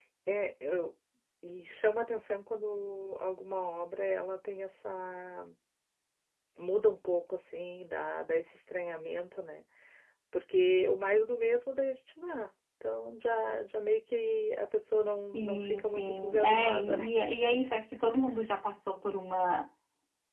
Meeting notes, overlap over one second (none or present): present